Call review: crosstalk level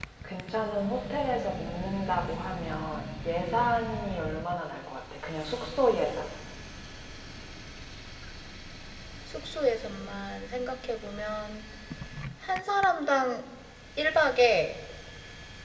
none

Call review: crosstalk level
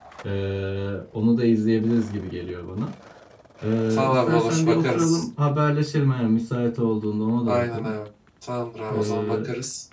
present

